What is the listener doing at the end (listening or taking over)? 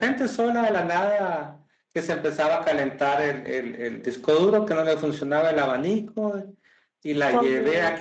listening